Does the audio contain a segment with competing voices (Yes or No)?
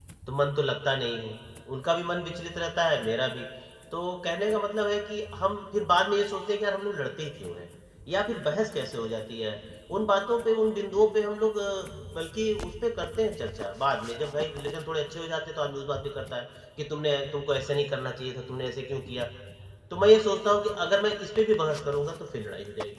No